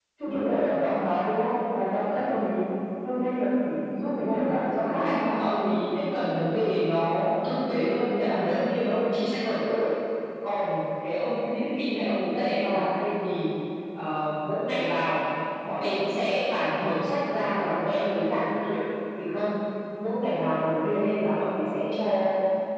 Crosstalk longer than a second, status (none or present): present